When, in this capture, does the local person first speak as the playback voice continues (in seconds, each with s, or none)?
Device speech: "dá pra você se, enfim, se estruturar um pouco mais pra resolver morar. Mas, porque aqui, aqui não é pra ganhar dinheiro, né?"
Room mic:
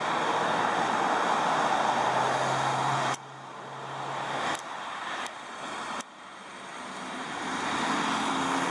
none